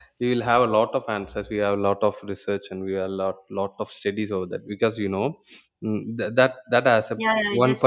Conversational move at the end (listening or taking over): taking over